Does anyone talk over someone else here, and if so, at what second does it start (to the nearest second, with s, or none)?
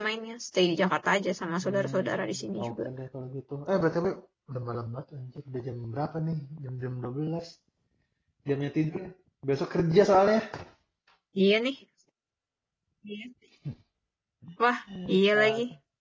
2 s